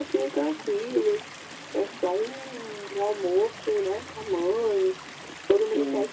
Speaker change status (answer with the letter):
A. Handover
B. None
B